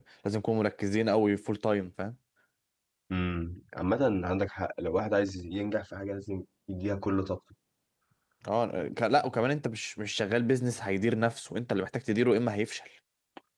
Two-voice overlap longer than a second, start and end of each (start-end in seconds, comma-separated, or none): none